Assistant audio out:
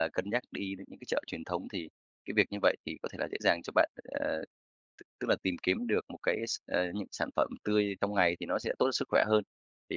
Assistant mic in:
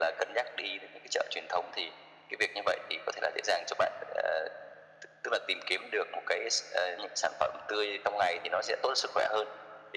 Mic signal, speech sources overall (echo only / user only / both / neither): echo only